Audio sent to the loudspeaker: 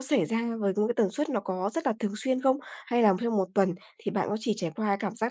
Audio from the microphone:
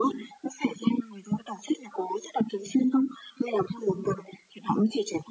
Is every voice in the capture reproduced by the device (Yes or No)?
Yes